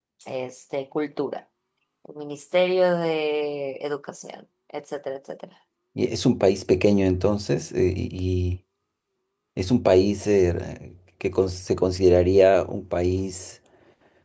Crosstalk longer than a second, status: none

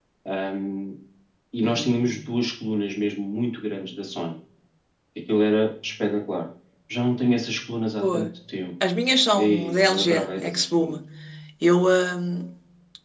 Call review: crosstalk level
present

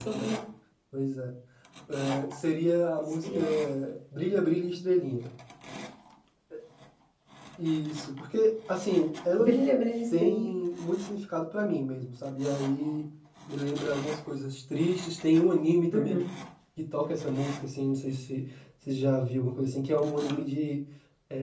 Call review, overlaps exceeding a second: none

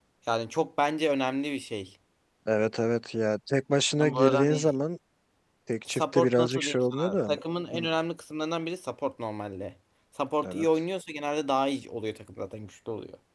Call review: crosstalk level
present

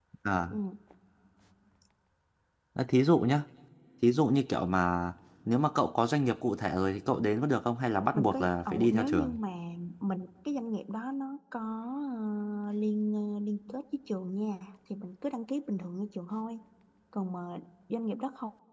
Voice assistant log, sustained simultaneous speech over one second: present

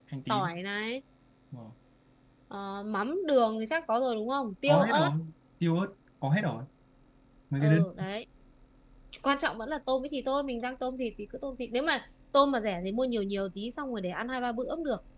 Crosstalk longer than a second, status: none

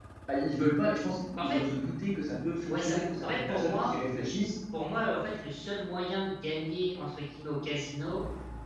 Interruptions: present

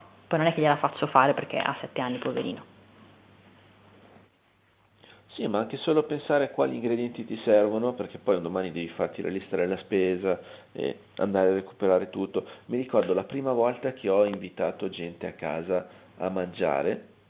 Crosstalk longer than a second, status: none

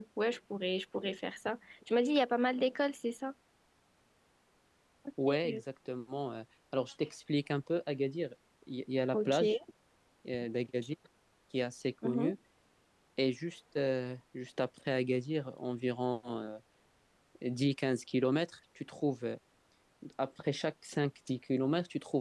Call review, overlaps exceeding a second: none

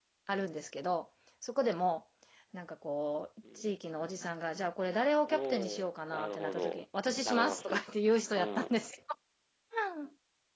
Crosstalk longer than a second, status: present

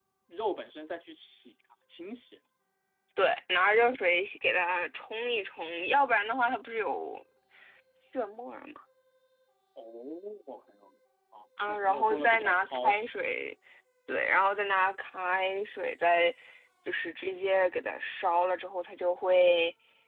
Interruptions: present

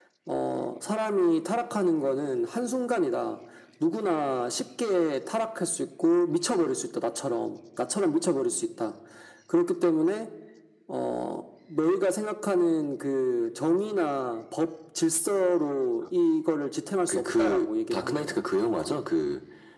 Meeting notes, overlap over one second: present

